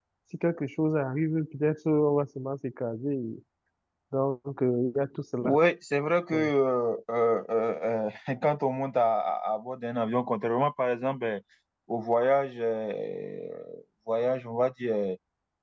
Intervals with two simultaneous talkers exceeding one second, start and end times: none

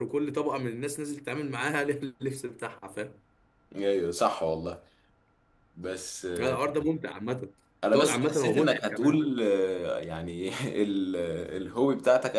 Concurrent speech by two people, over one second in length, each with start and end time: 7.9-9.2

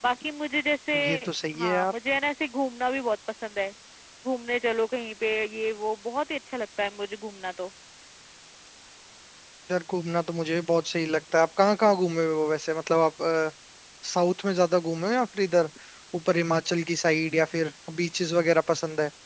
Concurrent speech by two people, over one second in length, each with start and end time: none

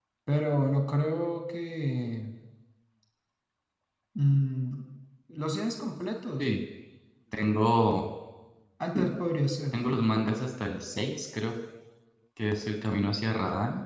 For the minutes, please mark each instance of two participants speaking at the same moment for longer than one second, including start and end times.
none

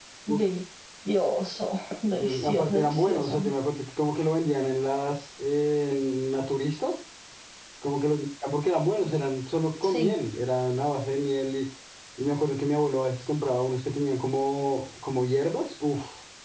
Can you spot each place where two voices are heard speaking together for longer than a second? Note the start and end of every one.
2.1-3.4

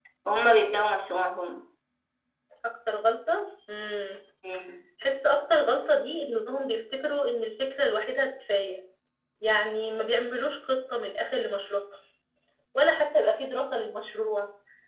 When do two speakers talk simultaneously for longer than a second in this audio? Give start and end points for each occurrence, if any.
none

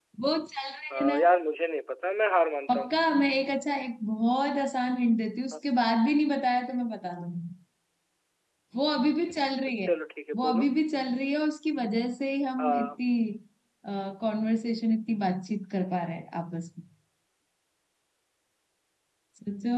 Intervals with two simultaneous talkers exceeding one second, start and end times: none

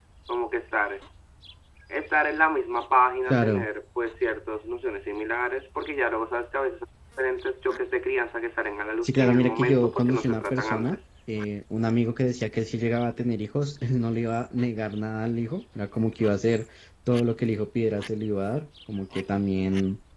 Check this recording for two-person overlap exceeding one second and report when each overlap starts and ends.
9.0-11.0

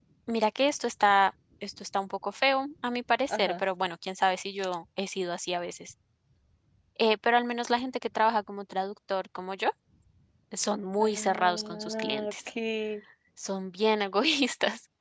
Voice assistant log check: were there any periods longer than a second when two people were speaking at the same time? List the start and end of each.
11.0-12.5

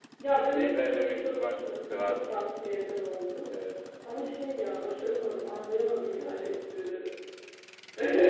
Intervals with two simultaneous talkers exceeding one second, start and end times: 0.5-2.4

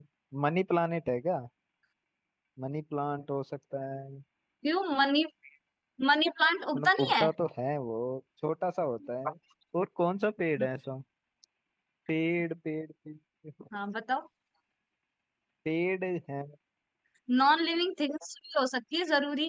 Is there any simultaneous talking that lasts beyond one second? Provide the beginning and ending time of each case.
none

